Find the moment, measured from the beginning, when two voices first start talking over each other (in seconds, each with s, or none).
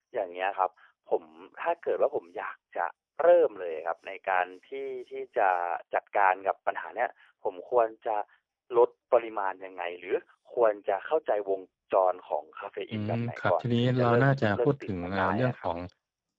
12.9 s